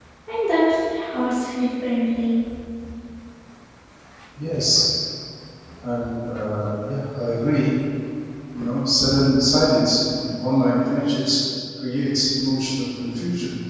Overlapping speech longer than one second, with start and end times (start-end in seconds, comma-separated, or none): none